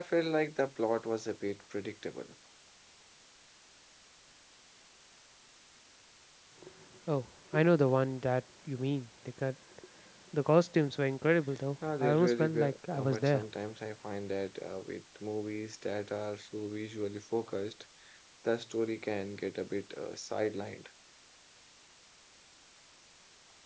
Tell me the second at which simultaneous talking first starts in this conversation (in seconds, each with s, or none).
11.8 s